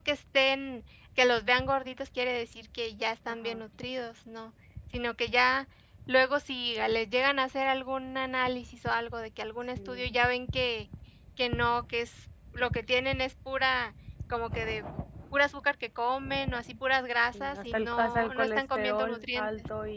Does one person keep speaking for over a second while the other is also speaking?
Yes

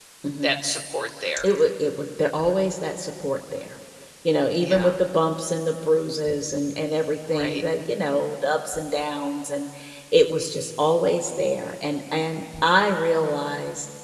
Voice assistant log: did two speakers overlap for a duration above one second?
No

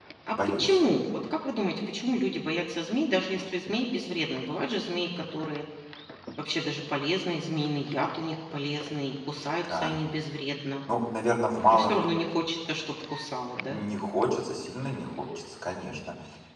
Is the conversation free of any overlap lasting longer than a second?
Yes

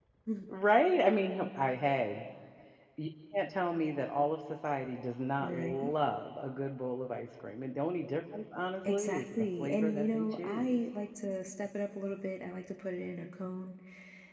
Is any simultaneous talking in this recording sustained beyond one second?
Yes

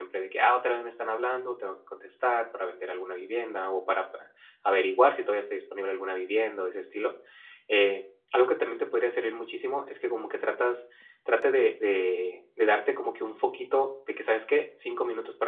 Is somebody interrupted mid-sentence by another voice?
No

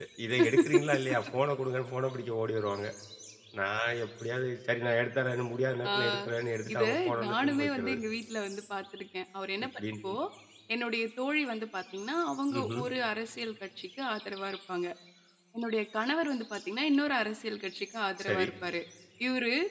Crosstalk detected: Yes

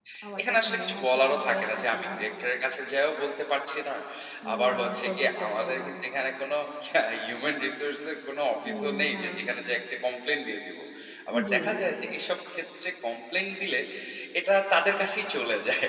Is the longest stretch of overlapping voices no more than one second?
No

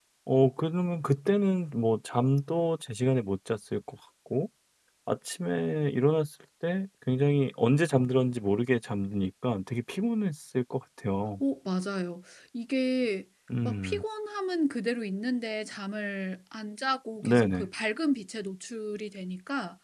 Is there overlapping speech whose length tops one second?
No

